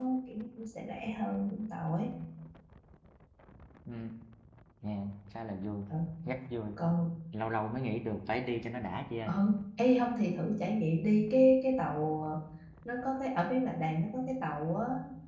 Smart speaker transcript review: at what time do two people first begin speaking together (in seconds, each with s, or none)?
none